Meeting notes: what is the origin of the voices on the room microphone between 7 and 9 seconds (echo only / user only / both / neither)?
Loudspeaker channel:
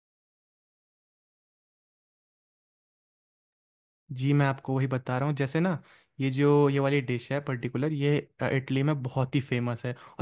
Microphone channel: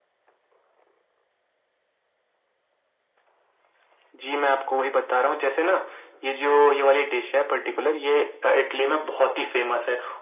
echo only